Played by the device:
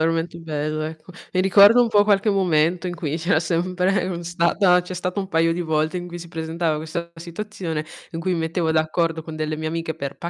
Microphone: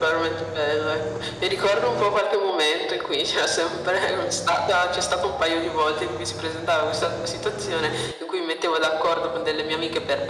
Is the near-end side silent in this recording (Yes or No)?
Yes